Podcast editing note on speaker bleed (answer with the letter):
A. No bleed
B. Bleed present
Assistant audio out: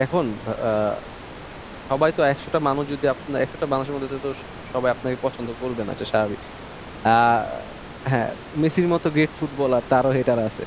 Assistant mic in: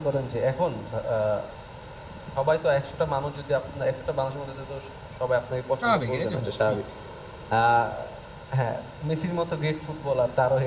B